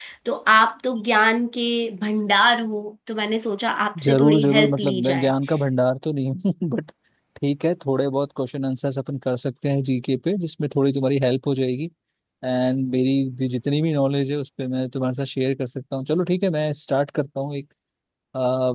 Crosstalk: present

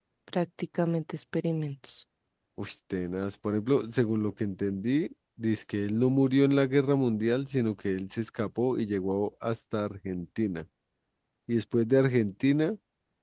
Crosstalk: none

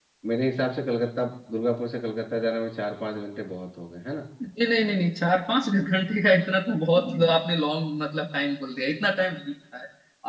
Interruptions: none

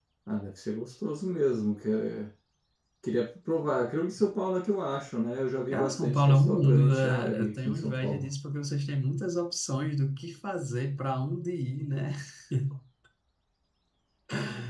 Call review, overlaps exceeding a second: present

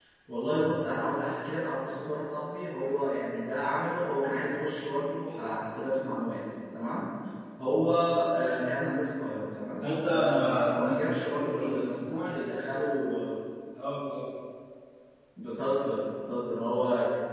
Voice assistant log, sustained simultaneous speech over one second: present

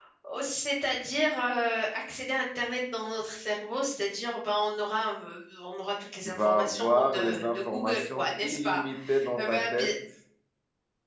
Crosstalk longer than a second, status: present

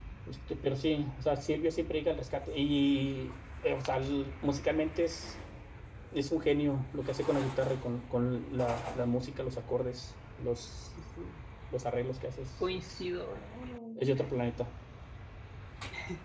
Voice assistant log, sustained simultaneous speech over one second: none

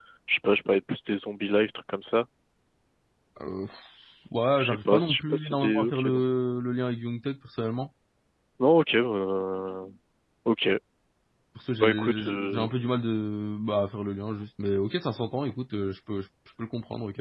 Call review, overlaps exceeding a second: present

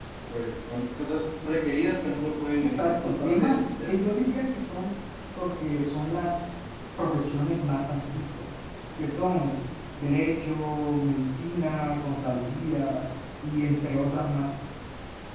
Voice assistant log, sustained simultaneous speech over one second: present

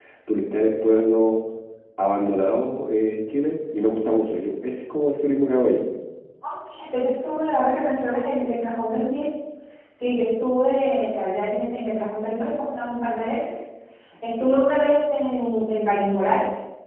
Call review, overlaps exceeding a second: none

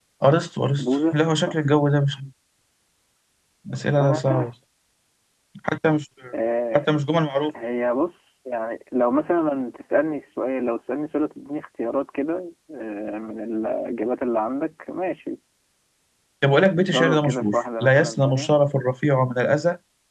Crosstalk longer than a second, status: present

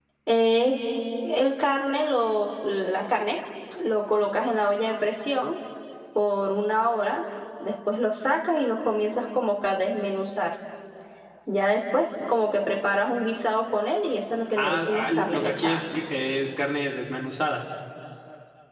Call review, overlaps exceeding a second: present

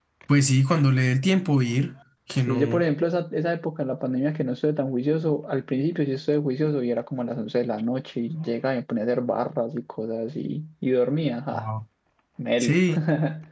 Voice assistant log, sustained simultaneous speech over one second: none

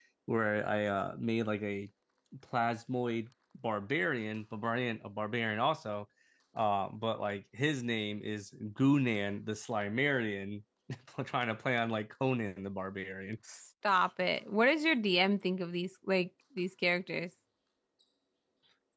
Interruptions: none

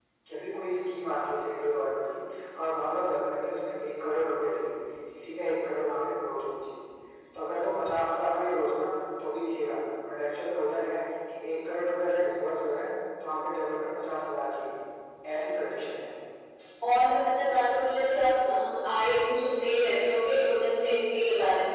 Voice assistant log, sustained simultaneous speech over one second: none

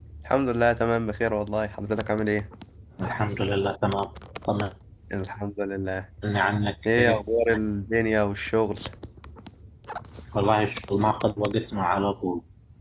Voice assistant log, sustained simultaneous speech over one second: none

